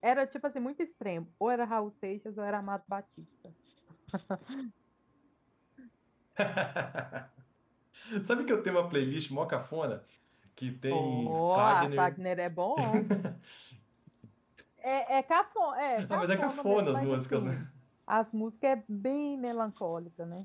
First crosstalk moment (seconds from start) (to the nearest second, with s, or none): 11 s